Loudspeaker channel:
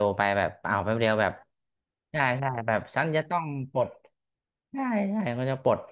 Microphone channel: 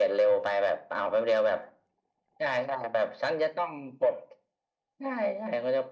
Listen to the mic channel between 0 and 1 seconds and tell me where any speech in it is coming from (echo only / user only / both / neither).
echo only